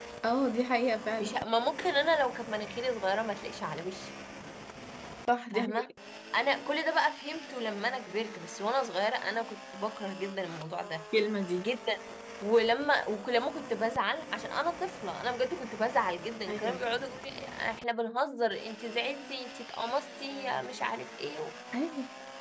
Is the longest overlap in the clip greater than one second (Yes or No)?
No